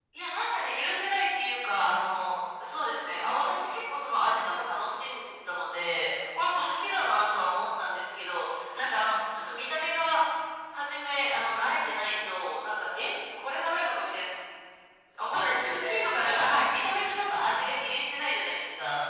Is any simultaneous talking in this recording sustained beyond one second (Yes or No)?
Yes